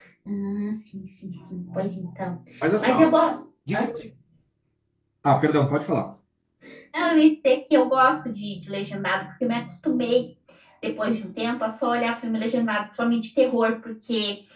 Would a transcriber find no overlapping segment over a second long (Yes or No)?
Yes